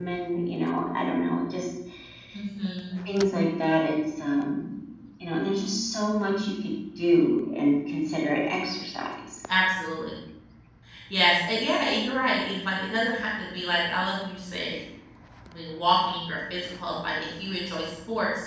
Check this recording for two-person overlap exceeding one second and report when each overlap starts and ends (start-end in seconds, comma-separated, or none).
none